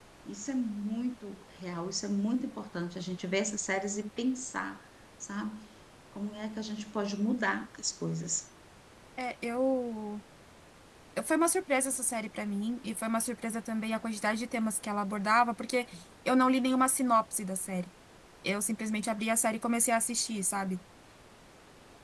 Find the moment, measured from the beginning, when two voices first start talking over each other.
none

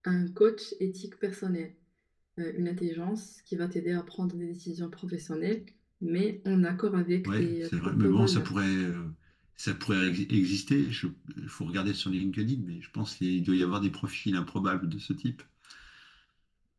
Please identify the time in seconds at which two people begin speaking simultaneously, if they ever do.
7.2 s

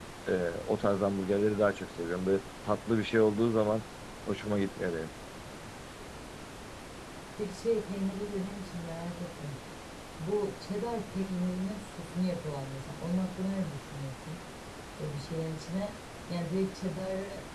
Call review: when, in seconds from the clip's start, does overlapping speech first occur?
none

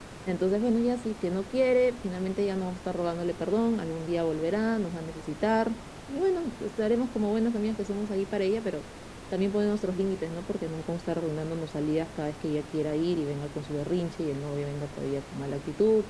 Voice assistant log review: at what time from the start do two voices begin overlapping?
none

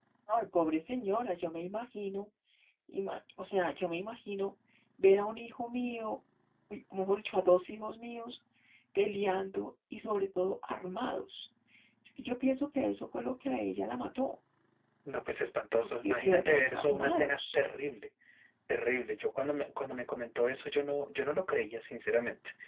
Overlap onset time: 15.8 s

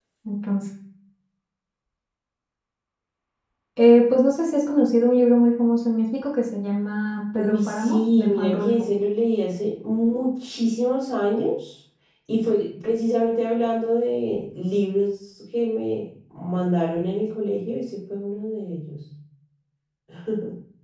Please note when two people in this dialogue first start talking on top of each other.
7.4 s

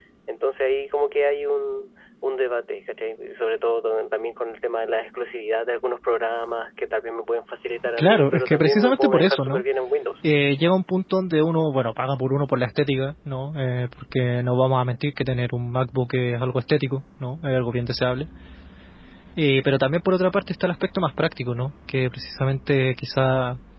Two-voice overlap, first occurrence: 8.0 s

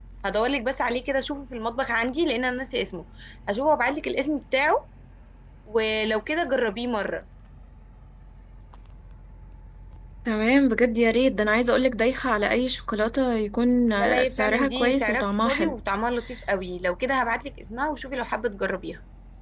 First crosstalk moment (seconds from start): 13.9 s

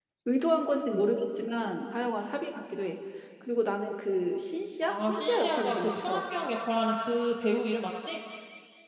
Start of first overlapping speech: 4.8 s

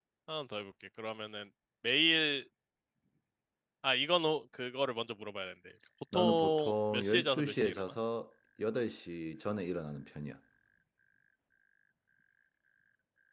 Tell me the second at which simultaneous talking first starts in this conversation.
6.1 s

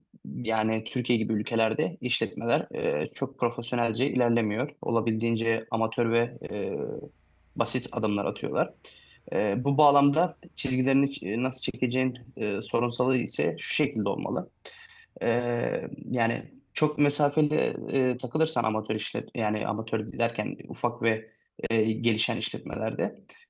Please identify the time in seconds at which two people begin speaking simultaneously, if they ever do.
none

